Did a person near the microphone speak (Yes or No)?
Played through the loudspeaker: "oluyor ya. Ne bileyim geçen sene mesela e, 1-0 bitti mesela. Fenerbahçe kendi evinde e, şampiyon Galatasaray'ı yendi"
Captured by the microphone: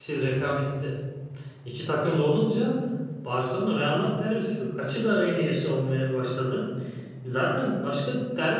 Yes